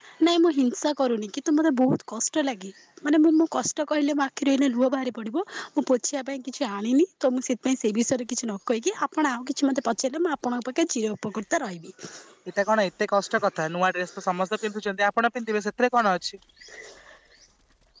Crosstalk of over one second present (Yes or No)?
No